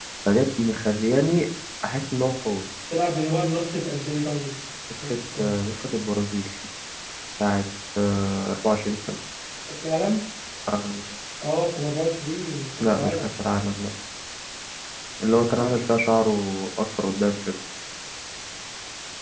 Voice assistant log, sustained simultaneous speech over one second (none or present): none